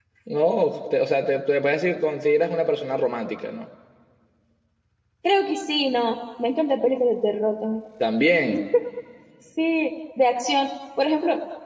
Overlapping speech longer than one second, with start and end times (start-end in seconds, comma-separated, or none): none